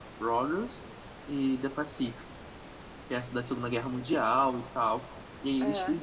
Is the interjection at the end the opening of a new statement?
No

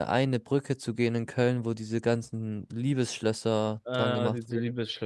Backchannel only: No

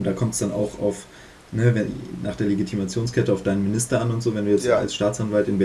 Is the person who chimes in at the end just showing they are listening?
Yes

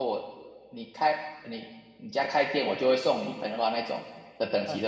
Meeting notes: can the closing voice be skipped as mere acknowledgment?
No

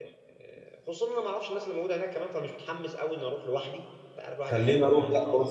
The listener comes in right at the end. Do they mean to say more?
Yes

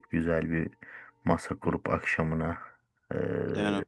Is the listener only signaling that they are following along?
Yes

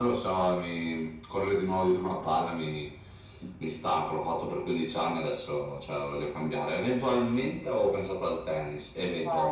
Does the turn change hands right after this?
Yes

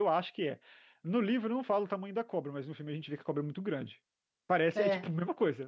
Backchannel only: Yes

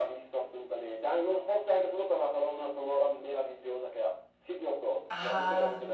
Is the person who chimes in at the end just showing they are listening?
No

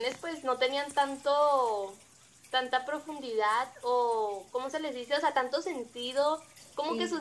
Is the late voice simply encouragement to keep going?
Yes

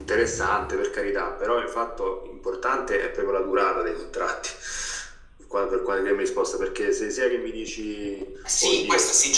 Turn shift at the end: Yes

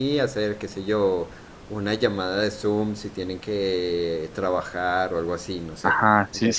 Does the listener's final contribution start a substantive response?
Yes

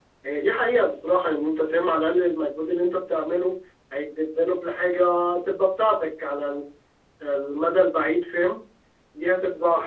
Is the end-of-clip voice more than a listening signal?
No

